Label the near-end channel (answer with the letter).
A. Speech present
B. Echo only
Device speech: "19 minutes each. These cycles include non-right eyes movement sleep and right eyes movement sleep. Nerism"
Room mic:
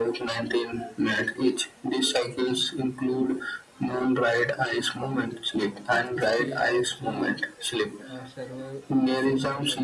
A